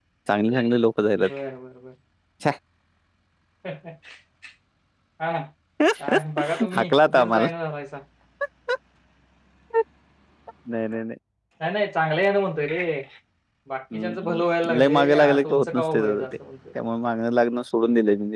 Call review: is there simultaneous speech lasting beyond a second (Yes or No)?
Yes